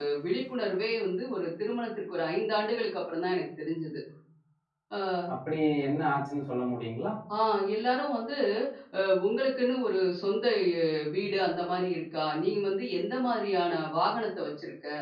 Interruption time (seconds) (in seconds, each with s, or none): none